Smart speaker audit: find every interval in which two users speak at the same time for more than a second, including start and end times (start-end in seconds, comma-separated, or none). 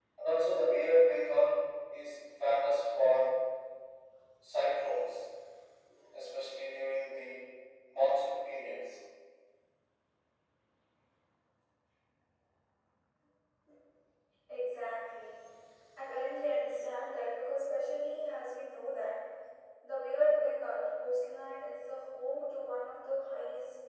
none